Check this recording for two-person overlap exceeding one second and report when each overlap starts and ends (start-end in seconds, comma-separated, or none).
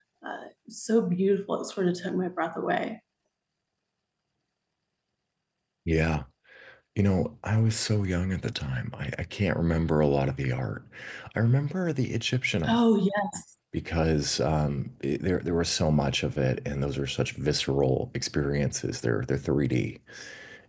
none